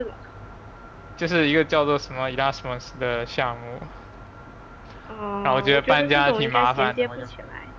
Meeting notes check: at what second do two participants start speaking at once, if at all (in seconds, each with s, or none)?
5.5 s